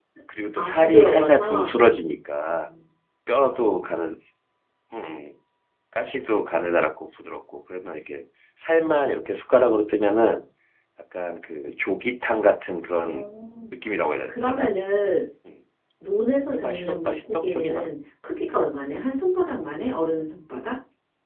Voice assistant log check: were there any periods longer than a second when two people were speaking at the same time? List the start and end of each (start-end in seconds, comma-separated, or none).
0.6-1.8, 16.5-17.9